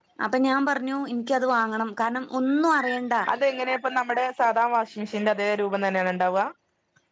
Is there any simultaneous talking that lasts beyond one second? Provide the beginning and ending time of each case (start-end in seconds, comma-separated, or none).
none